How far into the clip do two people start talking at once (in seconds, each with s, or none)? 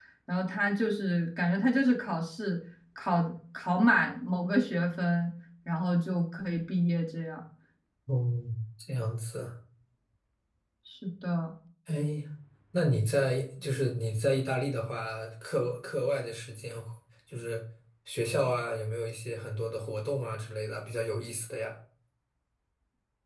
none